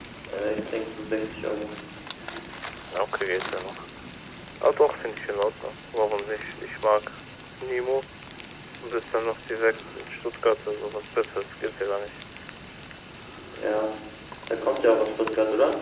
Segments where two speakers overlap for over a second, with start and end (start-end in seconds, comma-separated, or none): none